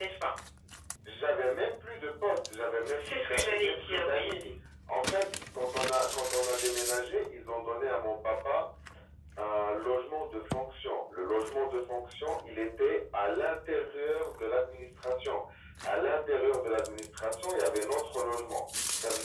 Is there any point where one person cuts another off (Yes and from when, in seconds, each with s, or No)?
Yes, from 2.9 s